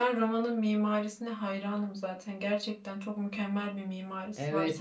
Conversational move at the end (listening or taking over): taking over